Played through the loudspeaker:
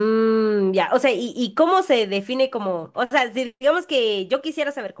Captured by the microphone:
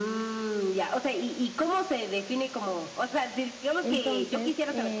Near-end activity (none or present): present